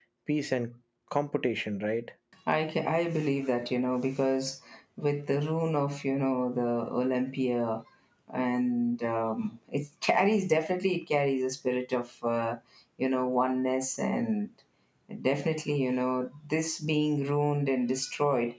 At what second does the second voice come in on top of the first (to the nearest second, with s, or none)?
none